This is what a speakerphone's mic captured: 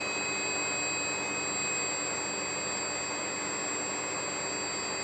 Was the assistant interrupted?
No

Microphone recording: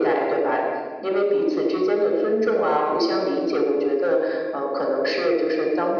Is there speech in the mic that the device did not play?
No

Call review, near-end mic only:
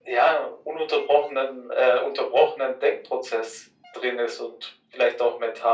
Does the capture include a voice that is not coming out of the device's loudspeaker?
No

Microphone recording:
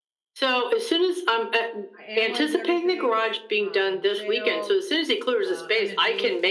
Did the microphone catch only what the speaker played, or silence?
No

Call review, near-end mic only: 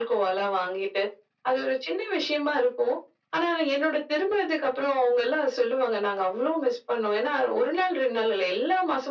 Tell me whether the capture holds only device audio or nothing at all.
Yes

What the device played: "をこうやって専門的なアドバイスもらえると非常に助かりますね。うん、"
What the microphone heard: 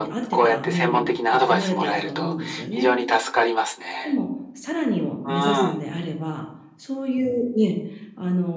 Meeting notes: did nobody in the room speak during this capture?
No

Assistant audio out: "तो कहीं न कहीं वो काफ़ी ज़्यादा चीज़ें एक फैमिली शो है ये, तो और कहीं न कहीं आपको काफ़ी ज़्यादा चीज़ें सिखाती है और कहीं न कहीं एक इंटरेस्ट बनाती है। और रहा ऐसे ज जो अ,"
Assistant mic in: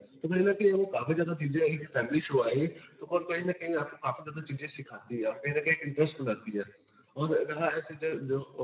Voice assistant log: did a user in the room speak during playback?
No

